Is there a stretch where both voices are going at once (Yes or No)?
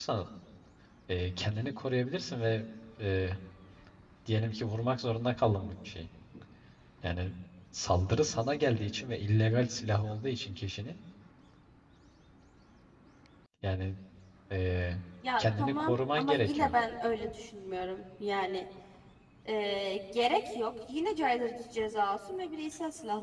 Yes